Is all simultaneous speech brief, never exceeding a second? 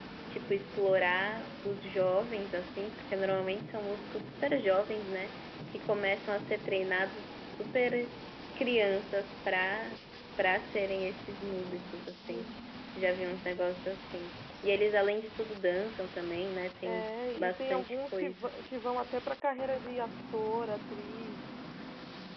No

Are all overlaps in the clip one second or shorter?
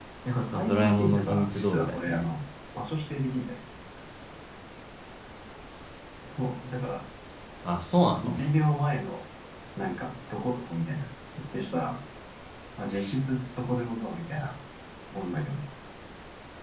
No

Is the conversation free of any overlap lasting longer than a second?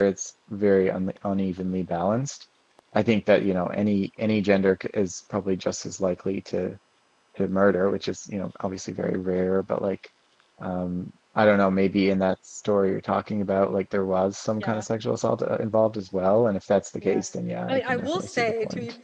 No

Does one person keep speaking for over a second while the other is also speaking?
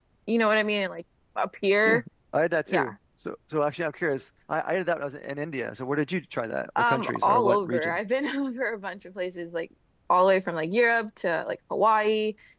Yes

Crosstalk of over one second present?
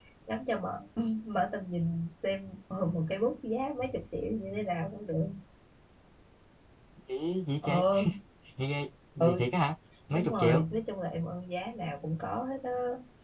No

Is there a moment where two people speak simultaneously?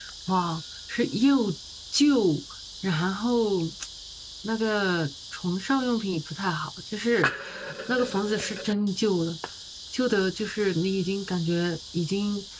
No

